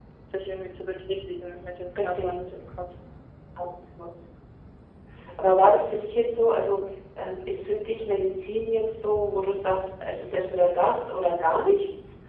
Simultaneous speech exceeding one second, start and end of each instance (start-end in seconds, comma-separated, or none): none